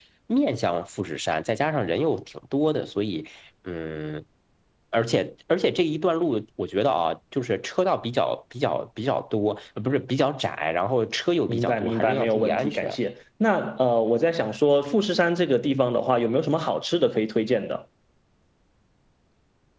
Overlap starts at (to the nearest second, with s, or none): 11 s